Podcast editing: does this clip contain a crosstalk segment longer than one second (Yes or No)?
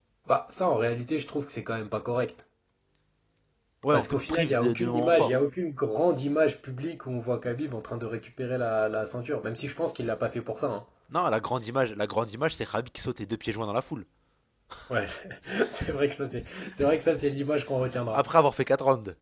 Yes